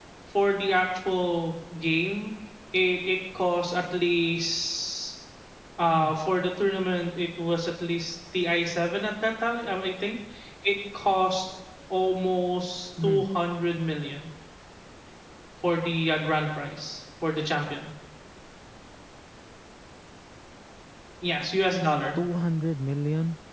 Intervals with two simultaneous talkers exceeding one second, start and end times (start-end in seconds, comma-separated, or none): none